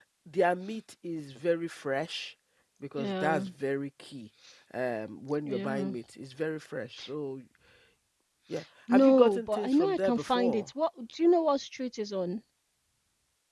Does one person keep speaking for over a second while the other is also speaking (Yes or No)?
Yes